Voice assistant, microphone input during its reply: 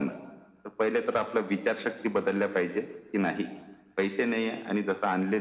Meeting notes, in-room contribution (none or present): none